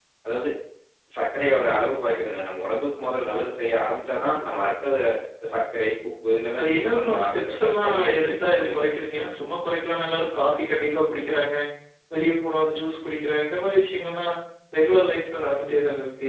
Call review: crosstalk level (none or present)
present